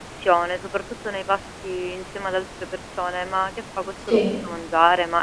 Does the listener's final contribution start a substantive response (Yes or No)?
No